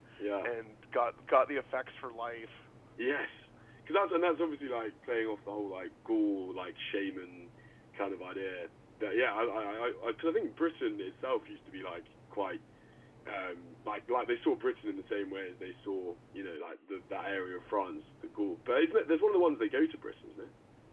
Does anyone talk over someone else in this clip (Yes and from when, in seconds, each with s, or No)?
No